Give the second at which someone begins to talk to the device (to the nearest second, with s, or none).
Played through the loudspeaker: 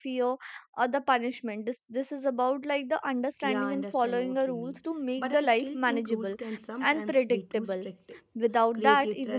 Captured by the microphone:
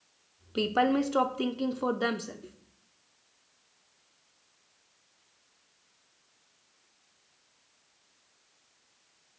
1 s